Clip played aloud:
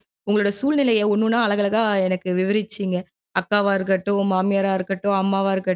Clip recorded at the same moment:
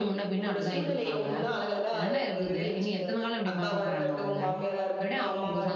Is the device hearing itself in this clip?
Yes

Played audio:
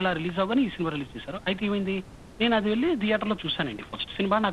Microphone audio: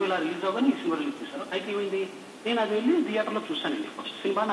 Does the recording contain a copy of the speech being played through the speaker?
Yes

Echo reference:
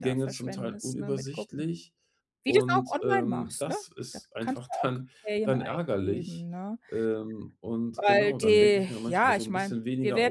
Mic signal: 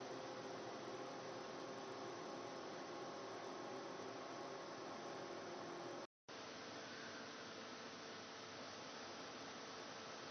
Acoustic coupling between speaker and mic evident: No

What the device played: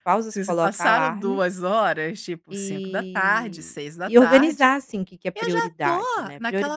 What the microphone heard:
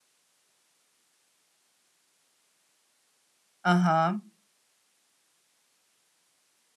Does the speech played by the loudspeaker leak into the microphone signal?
No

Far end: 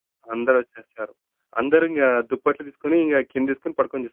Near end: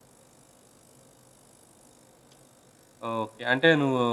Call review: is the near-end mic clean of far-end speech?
Yes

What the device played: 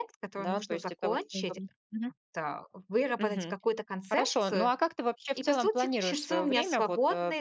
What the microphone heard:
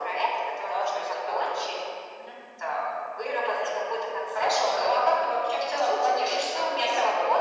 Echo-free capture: No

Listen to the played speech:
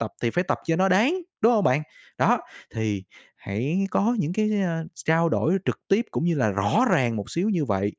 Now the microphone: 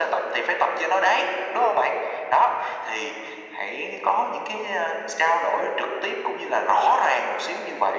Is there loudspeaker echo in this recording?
Yes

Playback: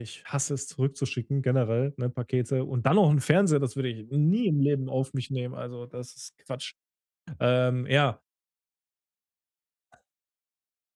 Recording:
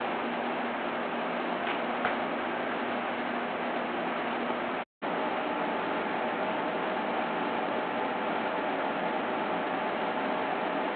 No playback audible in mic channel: Yes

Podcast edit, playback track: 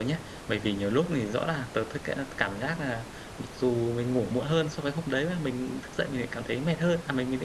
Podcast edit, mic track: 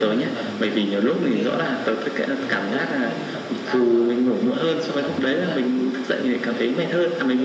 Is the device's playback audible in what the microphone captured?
Yes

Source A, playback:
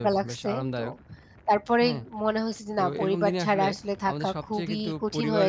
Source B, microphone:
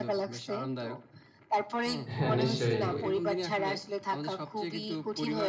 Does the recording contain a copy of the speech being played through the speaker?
Yes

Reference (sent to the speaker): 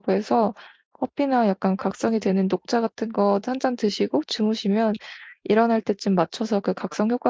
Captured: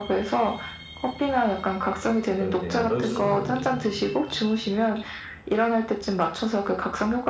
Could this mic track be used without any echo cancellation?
No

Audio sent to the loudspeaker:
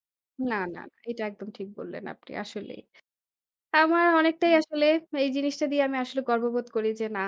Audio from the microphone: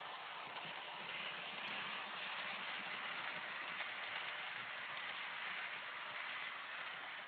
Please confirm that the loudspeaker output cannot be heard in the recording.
Yes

